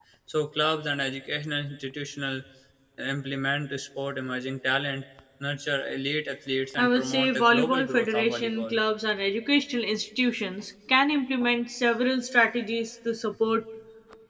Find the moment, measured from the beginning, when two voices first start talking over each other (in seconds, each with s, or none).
6.8 s